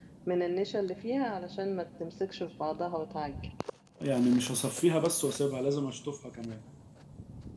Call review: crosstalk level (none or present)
none